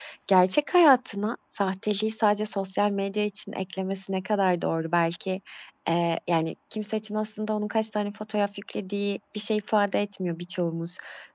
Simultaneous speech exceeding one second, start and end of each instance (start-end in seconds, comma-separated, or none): none